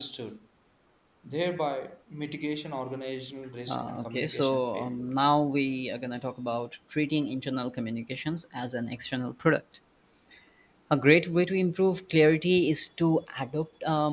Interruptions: present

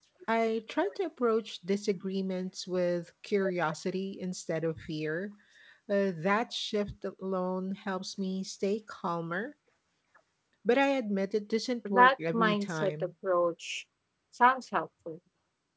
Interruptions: present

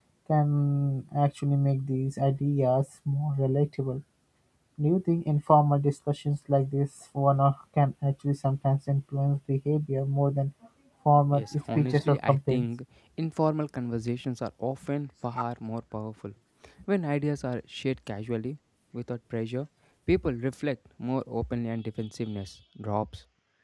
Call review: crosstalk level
present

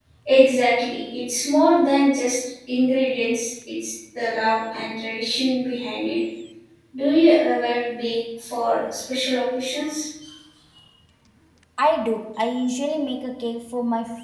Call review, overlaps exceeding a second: none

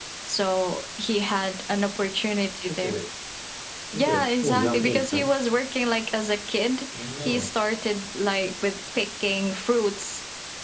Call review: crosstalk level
present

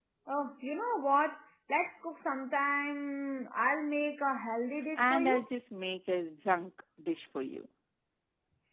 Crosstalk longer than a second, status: none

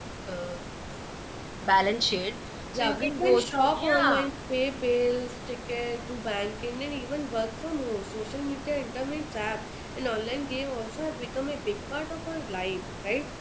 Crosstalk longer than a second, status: present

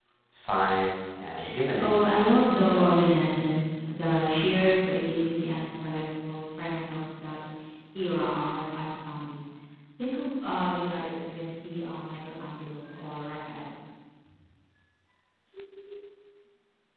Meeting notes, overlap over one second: present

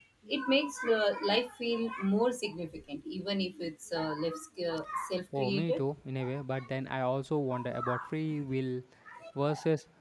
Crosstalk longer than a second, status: none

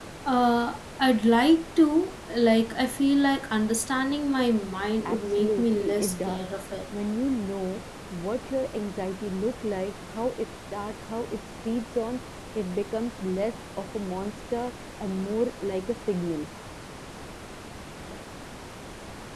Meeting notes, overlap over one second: present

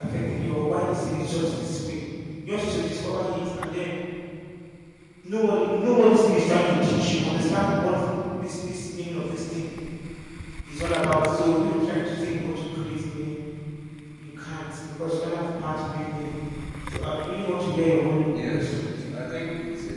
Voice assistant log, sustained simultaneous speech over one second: none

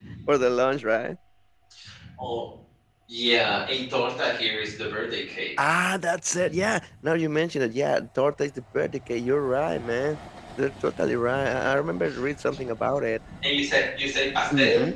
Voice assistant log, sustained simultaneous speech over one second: none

